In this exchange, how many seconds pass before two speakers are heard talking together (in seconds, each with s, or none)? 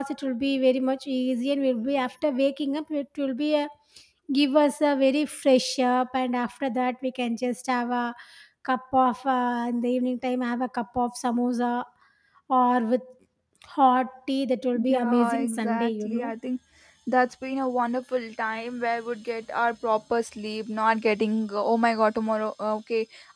14.8 s